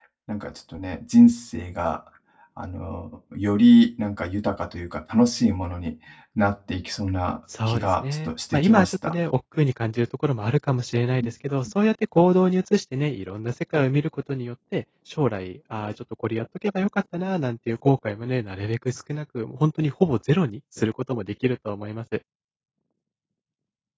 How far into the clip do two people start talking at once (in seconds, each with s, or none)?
7.5 s